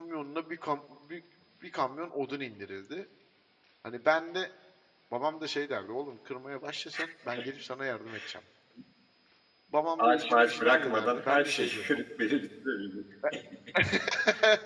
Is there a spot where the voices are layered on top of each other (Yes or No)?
Yes